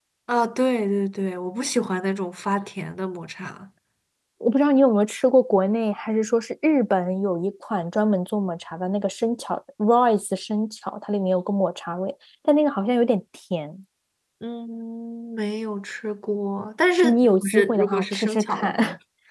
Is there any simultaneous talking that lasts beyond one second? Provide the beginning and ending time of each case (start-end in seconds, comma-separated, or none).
17.0-18.8